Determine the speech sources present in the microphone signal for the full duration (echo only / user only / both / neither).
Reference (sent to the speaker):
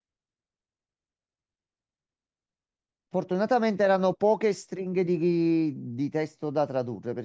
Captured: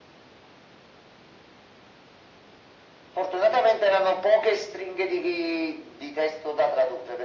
echo only